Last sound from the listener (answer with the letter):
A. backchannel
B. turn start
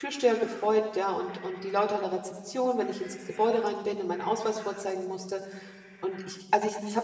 A